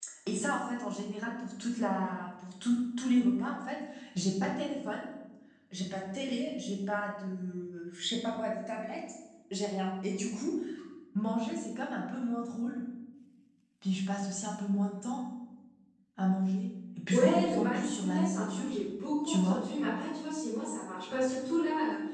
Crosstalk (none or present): present